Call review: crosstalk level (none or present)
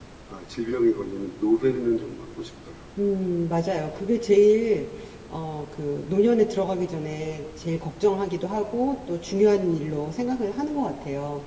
none